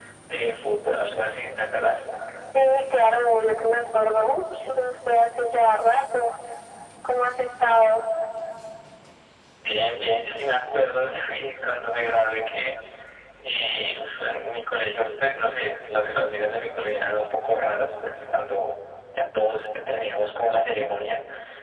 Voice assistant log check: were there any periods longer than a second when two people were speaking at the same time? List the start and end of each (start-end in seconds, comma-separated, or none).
none